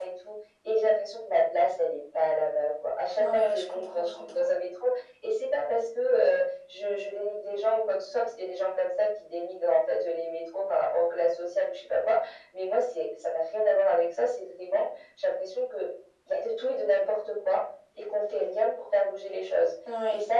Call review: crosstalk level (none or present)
present